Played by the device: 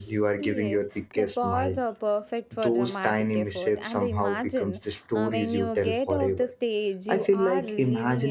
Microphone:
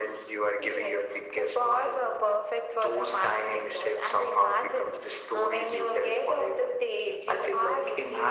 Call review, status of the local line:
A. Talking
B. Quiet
B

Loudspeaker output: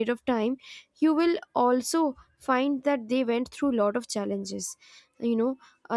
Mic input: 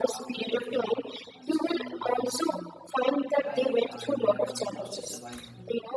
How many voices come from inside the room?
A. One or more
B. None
A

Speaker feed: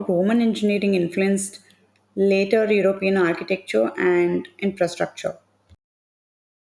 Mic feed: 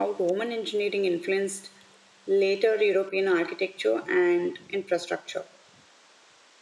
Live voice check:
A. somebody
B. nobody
B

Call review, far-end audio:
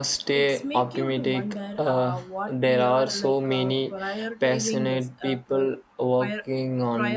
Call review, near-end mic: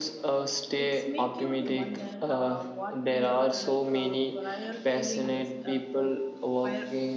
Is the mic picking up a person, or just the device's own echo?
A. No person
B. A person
A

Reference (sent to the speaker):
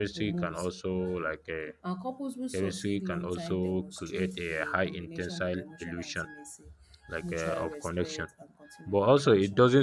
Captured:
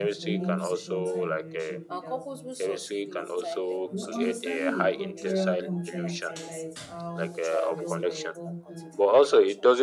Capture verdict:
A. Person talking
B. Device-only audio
A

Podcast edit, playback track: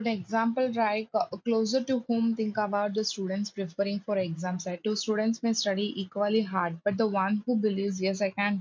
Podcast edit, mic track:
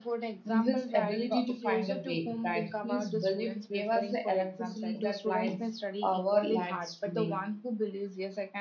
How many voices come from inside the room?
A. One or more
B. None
A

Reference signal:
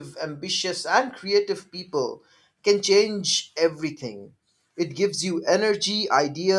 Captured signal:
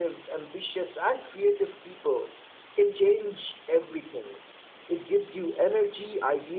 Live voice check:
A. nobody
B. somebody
A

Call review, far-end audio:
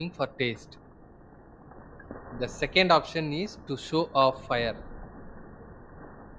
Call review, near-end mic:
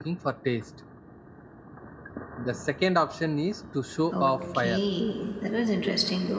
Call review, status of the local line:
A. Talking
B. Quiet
A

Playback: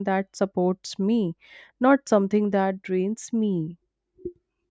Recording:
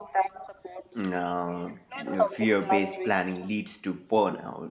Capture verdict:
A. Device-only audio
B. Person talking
B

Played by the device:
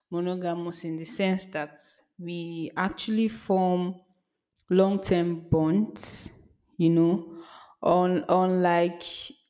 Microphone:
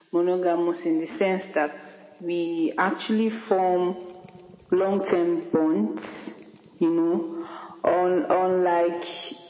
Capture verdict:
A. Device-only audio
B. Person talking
A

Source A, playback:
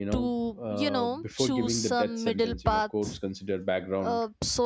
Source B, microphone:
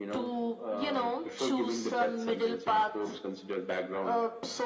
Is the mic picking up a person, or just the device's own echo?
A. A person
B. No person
B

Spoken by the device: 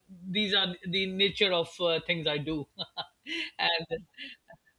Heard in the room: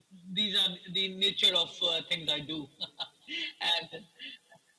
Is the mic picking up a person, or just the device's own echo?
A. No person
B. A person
A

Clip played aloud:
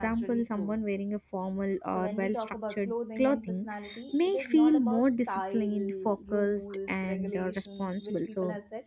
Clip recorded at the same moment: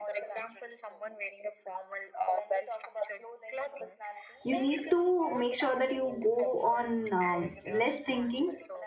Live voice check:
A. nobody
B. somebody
B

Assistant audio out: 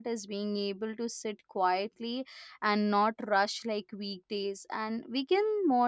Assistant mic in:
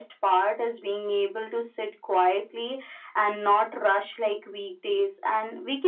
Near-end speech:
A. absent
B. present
A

